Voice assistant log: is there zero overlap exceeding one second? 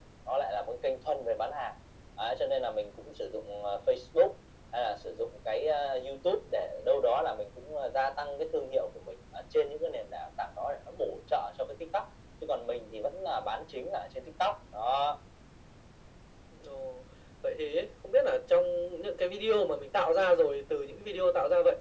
Yes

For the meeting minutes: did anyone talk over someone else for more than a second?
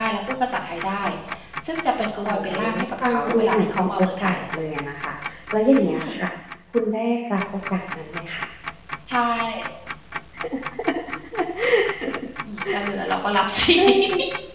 Yes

